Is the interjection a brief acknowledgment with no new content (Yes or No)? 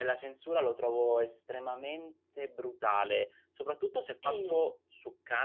Yes